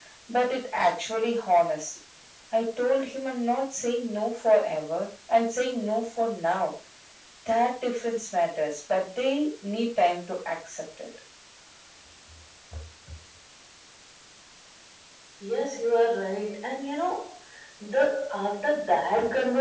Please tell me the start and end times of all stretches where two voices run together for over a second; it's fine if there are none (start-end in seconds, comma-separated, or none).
none